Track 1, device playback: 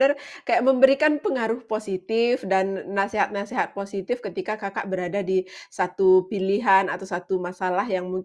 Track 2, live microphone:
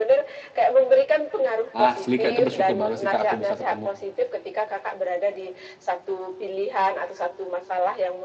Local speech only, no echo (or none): Asli, Kak, itu bersyukur banget sih, Kak, aku bisa ketemu.